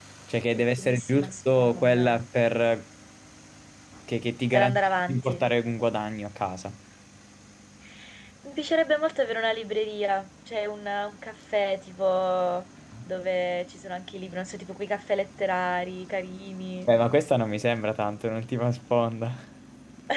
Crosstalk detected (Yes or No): Yes